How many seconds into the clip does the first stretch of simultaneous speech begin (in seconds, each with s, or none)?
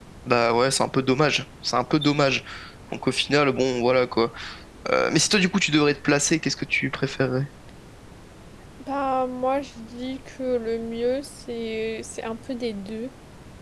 none